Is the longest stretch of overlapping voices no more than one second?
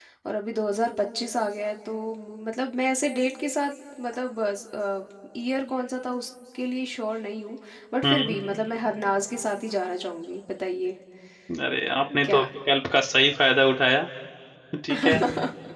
Yes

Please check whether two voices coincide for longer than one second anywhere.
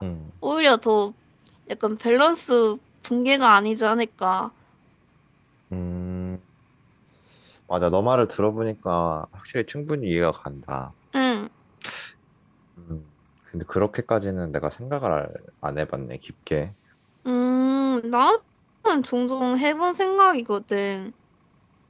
No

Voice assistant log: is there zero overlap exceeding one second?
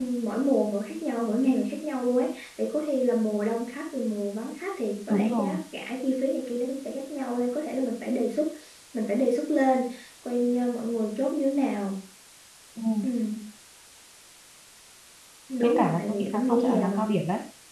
No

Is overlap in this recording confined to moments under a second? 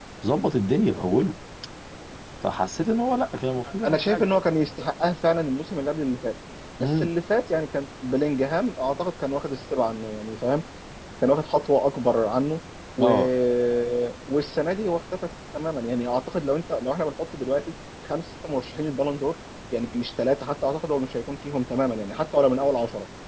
Yes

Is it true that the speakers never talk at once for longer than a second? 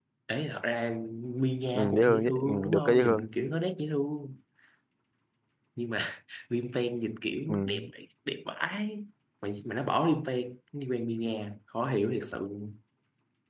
No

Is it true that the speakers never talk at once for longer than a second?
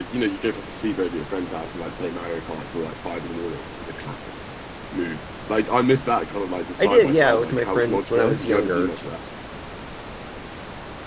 No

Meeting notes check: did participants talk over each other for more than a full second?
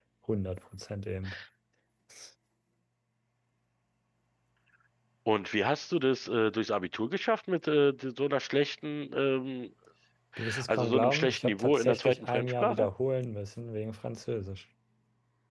Yes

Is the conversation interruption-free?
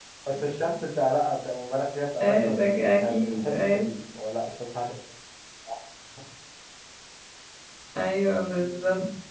No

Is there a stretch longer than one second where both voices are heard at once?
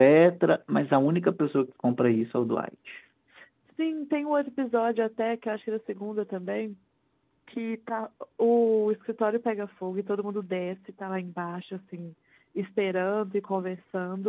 No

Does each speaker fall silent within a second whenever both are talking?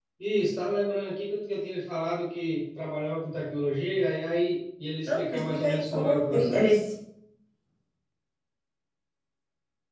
No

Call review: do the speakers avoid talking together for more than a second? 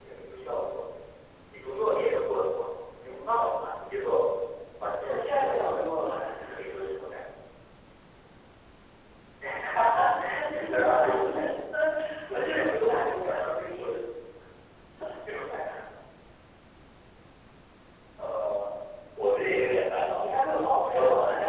No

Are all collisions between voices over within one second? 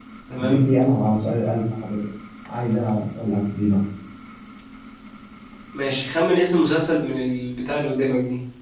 Yes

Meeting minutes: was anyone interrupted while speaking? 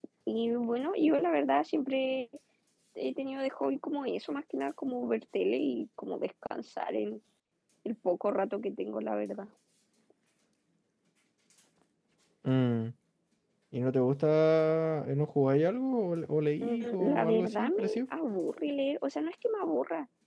Yes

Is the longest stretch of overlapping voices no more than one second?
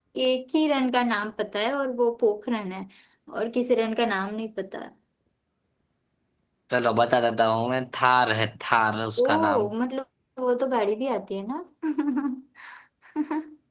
Yes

